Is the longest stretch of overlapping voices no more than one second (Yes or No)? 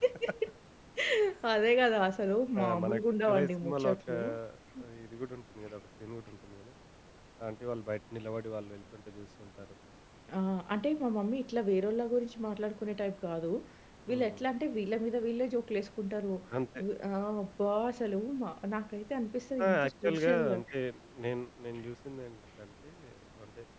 No